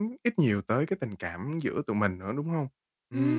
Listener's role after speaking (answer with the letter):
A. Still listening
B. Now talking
B